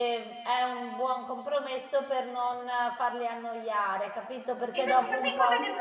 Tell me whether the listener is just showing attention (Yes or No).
No